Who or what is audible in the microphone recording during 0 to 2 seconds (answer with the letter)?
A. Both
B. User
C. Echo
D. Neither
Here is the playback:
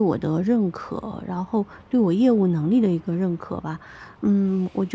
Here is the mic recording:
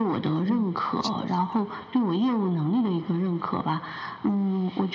A